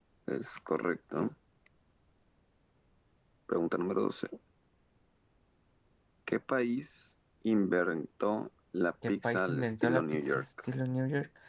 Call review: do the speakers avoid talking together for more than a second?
No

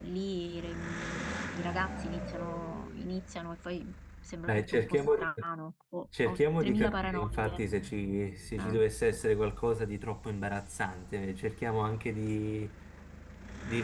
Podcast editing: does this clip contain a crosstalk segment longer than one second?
Yes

